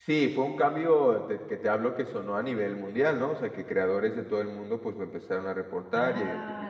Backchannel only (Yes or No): No